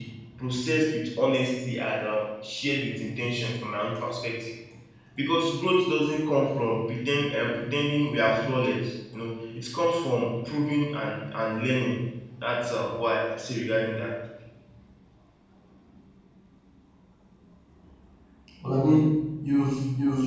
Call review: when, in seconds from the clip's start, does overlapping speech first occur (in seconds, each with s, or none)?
none